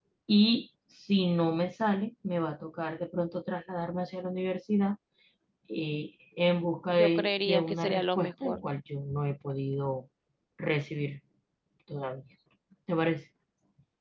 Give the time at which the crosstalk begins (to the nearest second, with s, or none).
7 s